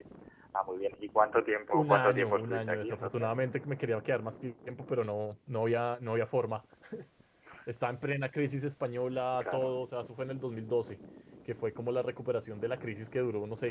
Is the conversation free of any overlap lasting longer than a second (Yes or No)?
No